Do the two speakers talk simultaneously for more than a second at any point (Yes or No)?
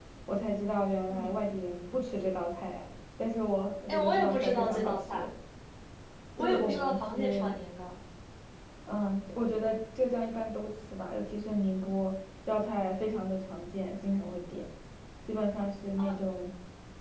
Yes